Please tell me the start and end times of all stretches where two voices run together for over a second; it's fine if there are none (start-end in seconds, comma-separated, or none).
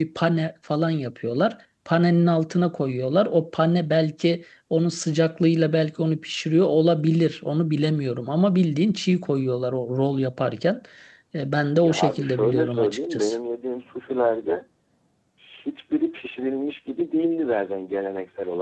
11.8-13.4